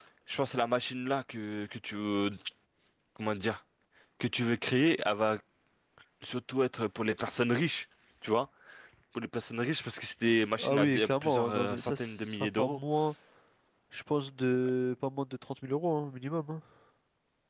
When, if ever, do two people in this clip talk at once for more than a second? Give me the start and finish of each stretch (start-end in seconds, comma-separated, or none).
10.6-12.8